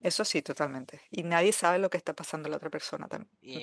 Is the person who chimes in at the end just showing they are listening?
No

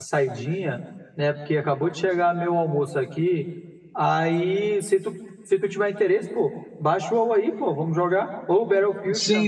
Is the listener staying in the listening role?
No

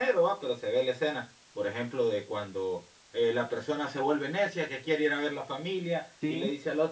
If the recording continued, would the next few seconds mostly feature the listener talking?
No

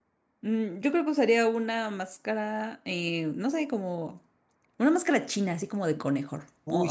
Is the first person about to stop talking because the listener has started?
Yes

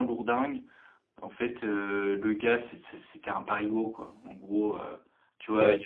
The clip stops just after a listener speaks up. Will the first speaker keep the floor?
Yes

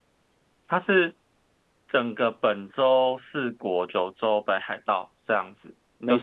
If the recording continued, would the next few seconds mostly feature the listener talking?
No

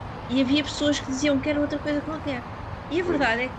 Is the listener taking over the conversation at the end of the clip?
No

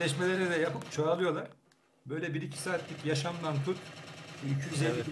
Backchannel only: Yes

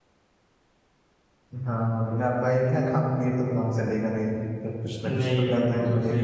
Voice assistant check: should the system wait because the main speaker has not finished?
No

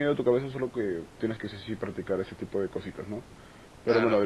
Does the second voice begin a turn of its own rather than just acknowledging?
No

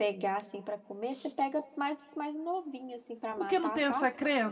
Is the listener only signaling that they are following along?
No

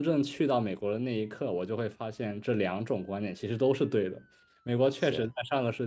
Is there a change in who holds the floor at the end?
No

